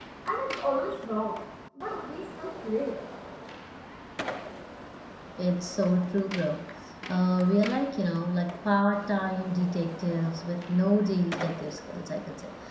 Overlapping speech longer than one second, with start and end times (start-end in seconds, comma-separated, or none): none